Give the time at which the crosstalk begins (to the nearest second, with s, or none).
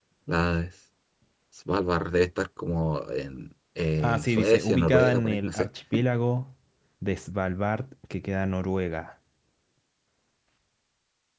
4 s